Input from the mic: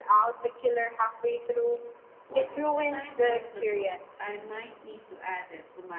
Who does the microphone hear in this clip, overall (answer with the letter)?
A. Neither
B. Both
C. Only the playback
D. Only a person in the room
B